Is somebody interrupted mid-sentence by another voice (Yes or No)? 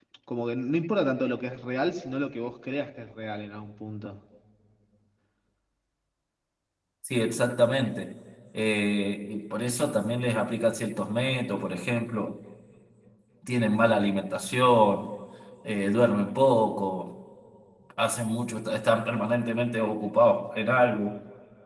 No